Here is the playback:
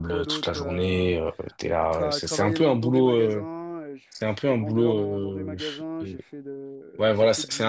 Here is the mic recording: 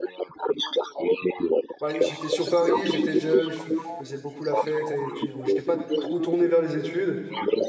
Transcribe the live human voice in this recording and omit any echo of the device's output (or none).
ouais, j'étais sur Paris, j'étais jeune, je f- faisais beaucoup la fête, et puis bon, j'étais pas trop tourné vers les études.